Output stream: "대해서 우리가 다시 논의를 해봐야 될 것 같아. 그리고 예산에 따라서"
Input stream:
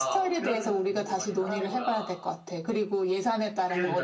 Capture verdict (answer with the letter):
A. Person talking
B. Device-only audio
A